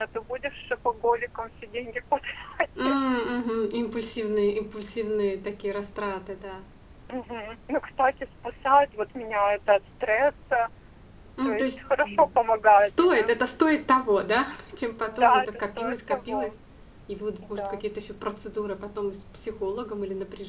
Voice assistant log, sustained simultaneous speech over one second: present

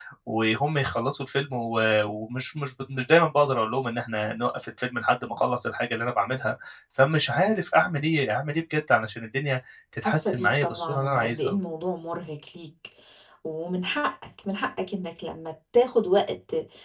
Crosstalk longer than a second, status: present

